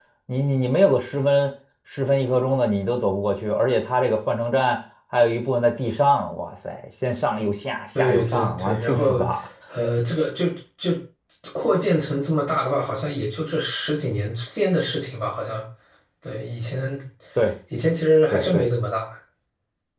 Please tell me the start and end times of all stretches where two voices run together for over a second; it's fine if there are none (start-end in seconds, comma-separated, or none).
8.0-9.2